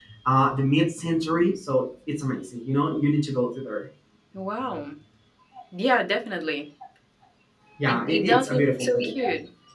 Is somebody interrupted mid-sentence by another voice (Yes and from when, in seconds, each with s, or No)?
Yes, from 7.9 s